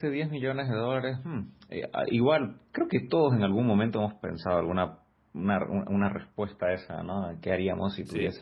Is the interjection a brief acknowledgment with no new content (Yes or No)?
Yes